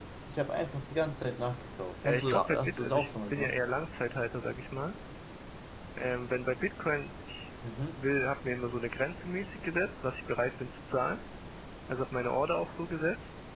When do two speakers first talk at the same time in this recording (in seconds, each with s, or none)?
2.0 s